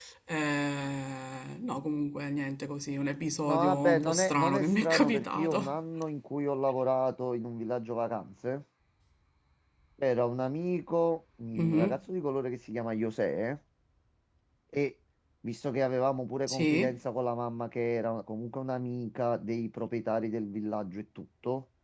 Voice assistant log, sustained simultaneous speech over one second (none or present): present